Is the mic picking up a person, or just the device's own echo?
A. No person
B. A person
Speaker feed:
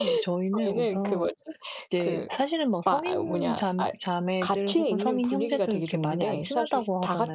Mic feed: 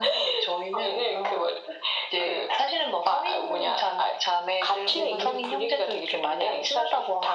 B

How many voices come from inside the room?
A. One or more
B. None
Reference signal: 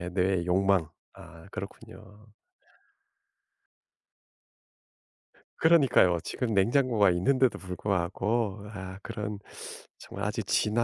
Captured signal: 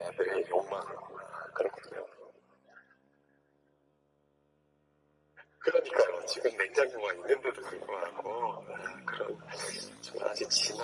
B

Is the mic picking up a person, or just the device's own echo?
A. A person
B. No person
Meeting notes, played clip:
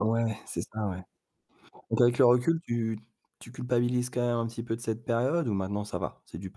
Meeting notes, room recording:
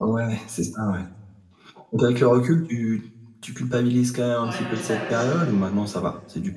A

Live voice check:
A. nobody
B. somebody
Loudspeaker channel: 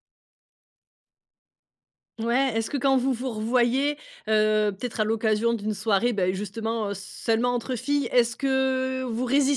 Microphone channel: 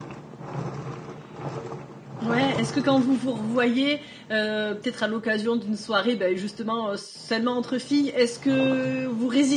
A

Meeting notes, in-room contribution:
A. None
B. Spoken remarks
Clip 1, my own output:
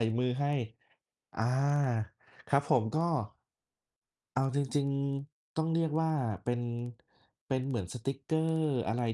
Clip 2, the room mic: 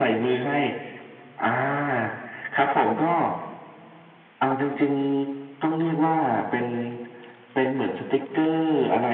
A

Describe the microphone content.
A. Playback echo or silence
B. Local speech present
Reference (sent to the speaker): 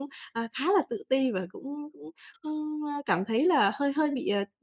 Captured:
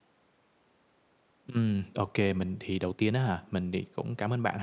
B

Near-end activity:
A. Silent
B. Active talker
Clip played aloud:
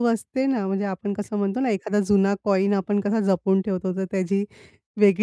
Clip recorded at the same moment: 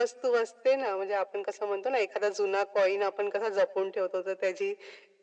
A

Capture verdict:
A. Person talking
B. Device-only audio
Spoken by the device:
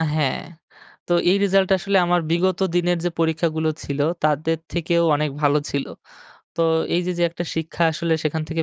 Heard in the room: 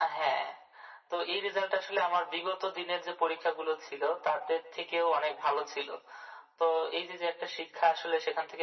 B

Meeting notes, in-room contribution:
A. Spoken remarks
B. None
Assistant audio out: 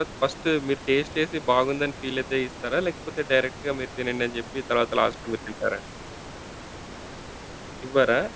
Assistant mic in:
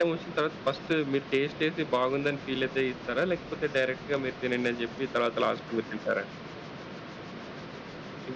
B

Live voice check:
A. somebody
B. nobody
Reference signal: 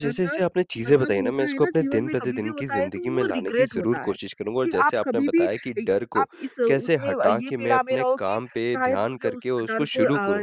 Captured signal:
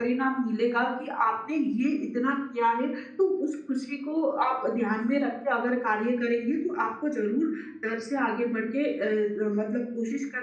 A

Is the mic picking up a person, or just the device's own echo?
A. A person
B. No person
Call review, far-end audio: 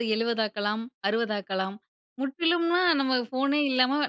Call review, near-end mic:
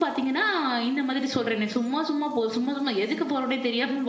A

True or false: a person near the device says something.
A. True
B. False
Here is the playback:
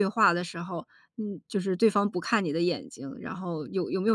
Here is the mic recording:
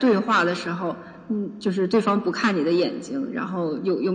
B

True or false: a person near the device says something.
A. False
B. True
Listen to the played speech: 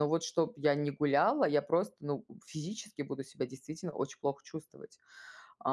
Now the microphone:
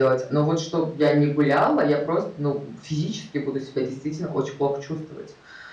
A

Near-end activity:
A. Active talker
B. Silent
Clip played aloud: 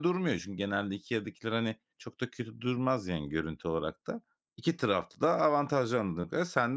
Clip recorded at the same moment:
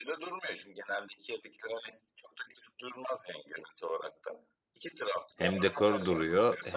A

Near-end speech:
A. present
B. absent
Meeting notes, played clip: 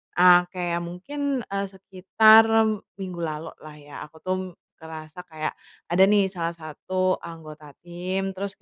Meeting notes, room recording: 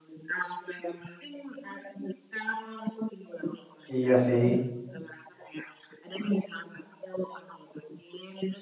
A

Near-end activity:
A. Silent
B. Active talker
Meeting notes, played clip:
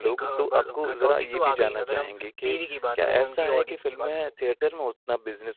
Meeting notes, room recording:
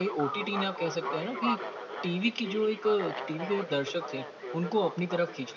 B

